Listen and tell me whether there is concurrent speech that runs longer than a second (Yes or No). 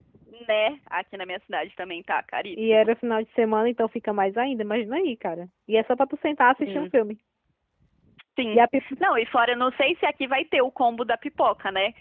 No